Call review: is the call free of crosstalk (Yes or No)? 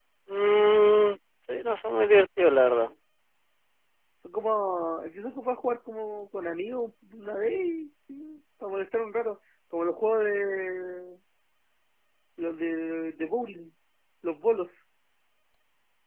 Yes